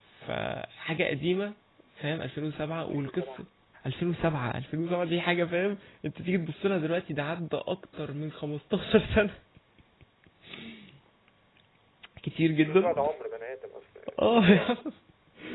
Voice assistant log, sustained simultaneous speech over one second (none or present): none